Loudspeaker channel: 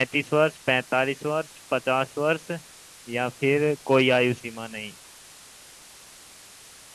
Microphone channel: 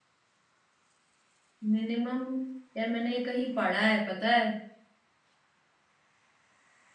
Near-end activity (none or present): present